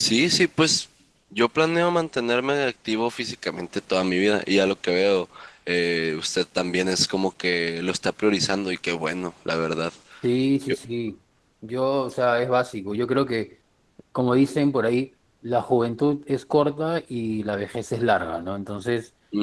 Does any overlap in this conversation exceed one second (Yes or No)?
No